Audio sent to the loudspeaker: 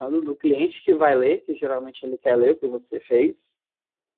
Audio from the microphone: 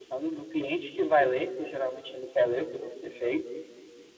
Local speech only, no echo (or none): none